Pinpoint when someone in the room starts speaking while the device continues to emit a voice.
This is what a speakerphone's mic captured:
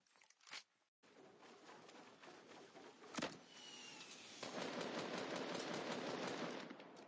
none

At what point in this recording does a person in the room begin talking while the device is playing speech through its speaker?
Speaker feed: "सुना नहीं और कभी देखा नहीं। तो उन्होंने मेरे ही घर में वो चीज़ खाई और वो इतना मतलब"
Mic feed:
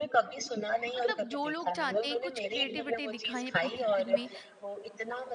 1.0 s

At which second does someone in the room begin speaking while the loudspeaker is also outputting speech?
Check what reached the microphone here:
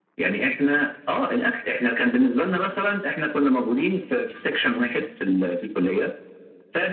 none

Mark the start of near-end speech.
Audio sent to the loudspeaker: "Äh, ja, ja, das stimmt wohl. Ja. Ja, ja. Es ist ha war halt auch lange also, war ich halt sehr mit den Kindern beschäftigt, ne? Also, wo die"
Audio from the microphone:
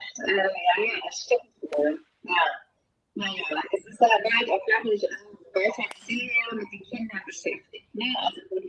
none

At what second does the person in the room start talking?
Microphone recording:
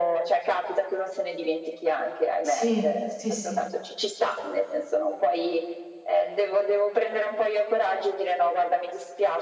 2.4 s

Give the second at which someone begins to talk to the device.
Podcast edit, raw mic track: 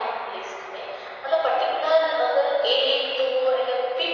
none

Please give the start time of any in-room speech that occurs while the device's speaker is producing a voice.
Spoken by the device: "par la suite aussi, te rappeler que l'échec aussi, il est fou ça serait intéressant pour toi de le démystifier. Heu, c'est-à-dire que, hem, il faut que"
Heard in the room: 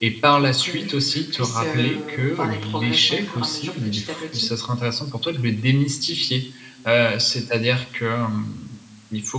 0.3 s

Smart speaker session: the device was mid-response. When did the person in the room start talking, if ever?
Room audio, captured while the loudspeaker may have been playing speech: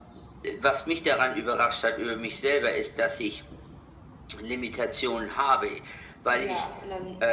6.3 s

